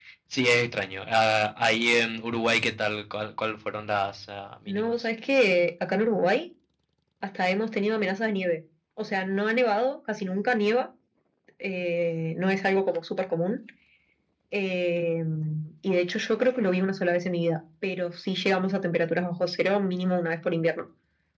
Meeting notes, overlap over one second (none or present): none